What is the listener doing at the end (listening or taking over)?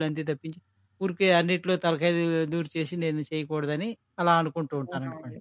taking over